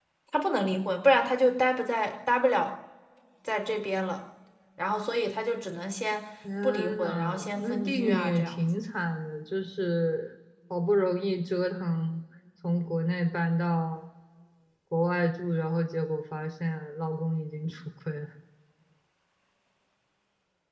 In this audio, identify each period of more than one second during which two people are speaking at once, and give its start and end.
6.6-8.6

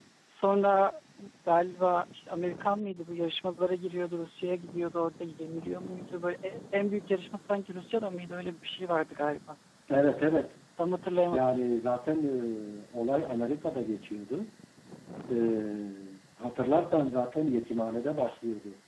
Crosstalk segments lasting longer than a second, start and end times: none

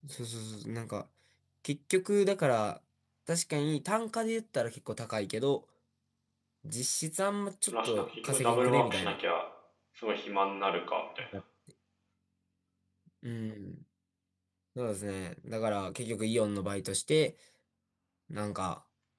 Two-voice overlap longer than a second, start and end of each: 7.7-9.1

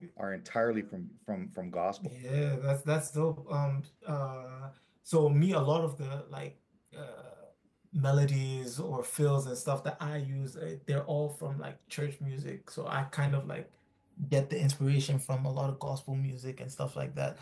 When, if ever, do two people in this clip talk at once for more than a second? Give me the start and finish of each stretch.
none

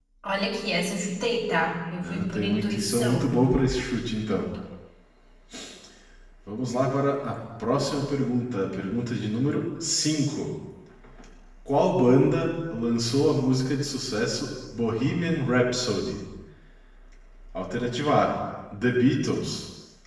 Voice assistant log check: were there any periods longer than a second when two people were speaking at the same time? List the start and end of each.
2.0-3.4

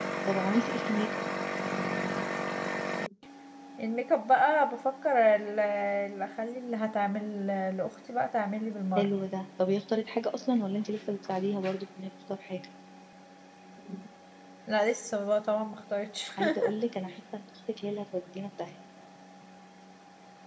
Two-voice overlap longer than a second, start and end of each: none

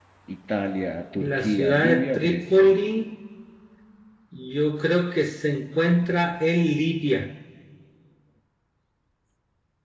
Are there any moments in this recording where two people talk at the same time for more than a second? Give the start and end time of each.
1.2-2.7

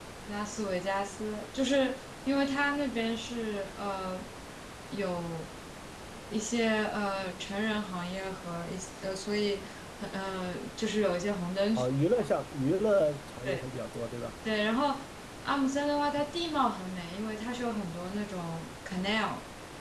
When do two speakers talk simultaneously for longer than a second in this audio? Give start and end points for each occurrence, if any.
none

